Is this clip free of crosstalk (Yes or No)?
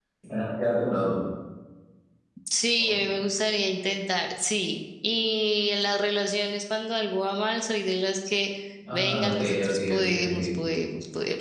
No